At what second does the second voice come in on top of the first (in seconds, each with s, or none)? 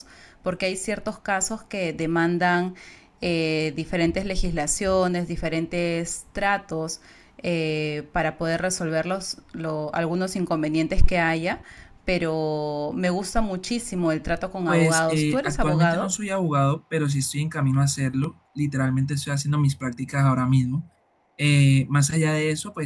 14.7 s